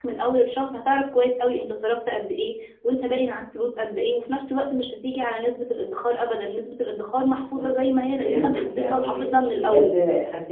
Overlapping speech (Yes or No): Yes